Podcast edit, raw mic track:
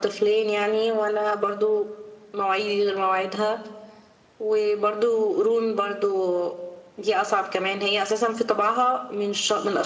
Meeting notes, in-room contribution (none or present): none